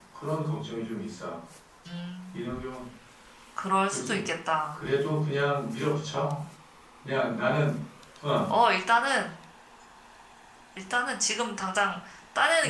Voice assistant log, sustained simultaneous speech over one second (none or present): none